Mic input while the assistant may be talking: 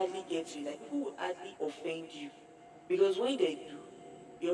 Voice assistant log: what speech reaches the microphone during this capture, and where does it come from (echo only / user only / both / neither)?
echo only